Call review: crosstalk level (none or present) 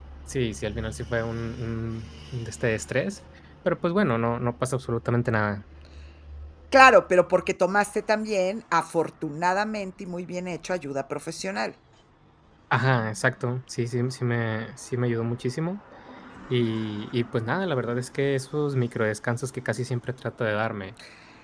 none